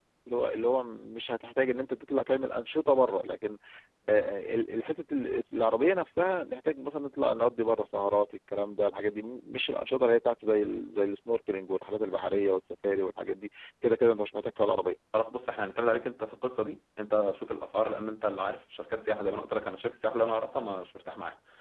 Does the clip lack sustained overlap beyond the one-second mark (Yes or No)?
Yes